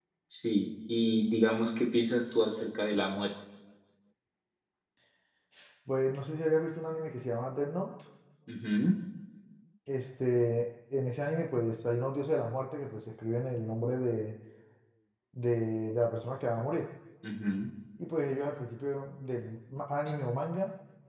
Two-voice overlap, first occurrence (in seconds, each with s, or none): none